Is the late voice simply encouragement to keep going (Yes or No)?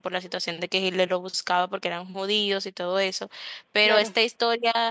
Yes